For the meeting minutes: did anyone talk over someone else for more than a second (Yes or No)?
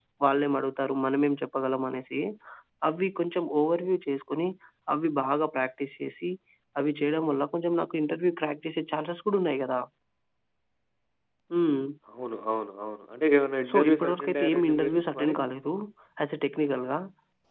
Yes